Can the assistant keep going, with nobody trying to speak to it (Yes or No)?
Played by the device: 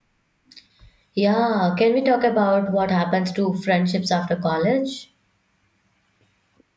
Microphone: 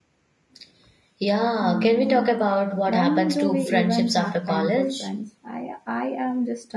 No